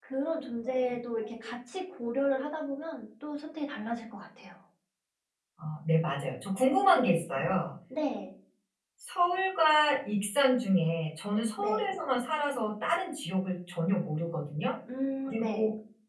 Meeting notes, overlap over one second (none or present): none